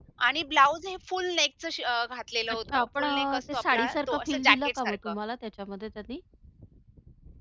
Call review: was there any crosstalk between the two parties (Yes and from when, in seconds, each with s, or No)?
Yes, from 2.7 s